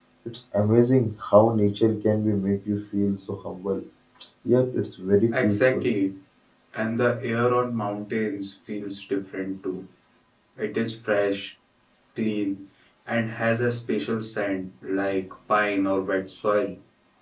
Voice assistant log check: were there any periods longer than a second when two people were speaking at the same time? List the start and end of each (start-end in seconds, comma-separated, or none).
none